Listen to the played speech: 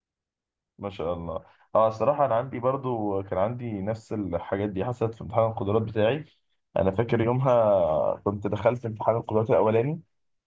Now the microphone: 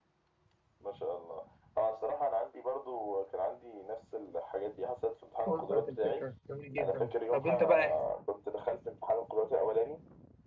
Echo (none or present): present